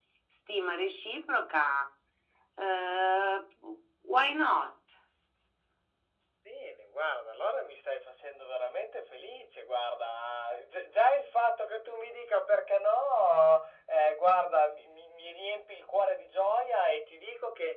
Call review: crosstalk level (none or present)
none